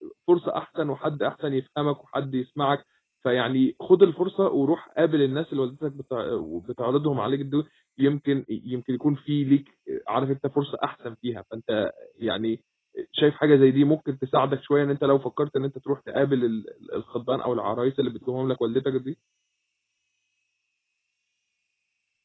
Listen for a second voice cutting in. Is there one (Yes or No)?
No